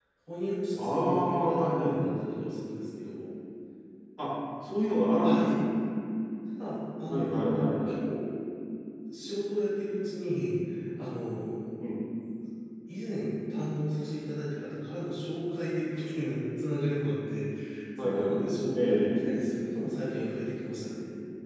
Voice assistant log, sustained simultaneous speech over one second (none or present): present